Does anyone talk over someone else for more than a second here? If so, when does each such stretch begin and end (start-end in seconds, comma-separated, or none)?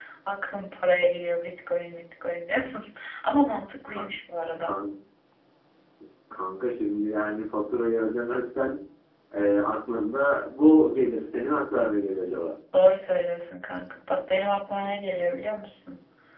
none